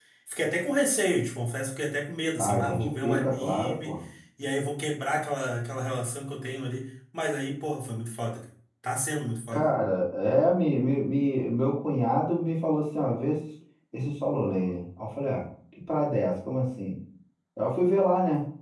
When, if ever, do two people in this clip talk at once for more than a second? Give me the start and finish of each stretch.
2.4-4.0

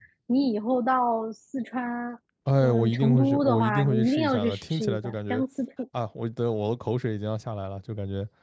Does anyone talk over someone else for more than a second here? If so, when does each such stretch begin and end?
2.6-5.4

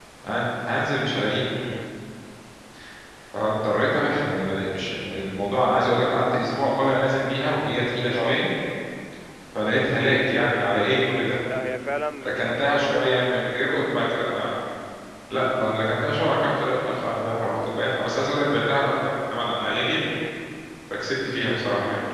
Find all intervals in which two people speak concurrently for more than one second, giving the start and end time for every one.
12.2-13.8

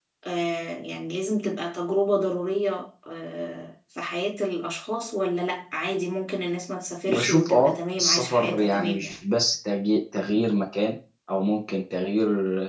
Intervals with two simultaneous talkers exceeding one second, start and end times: 7.1-9.2

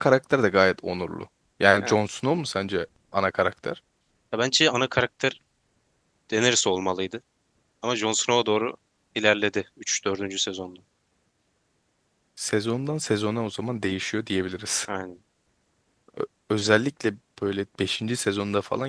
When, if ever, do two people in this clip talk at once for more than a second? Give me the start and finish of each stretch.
none

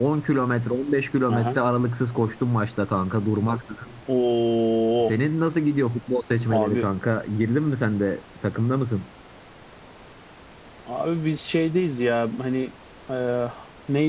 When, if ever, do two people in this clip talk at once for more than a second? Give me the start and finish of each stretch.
none

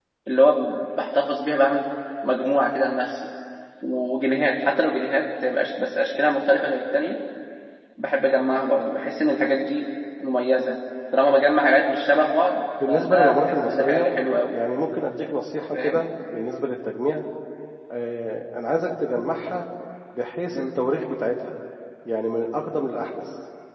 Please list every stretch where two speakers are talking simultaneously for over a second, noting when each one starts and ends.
12.9-14.1

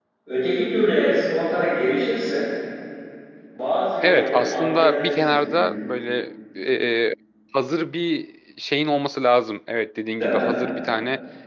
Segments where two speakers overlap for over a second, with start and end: 4.0-5.8

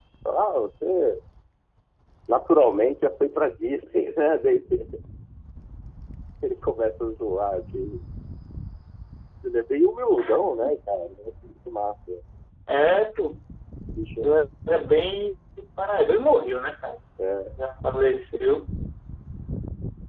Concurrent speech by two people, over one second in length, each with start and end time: none

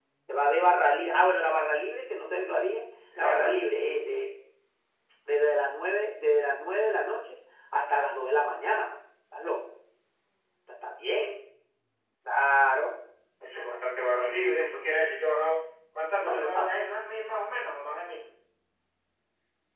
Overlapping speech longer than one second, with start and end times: none

